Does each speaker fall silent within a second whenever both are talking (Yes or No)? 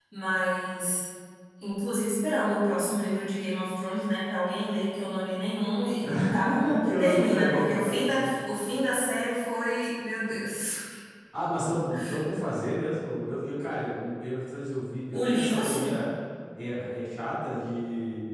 No